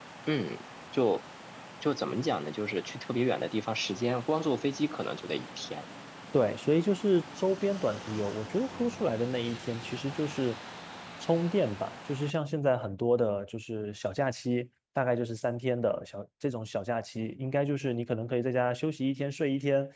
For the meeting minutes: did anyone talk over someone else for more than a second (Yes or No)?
No